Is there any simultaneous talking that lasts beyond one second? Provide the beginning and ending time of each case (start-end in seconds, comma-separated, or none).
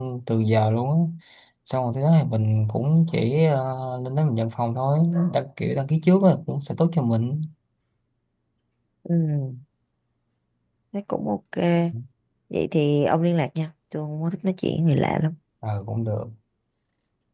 none